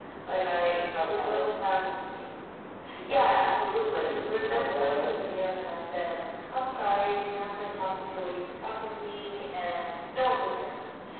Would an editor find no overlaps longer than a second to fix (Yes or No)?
No